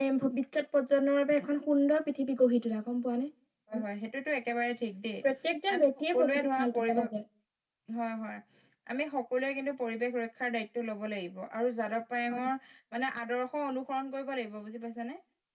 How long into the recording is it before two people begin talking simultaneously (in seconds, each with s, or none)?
5.7 s